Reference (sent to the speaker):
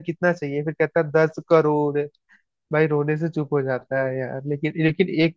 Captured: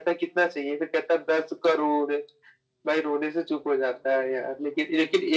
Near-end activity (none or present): none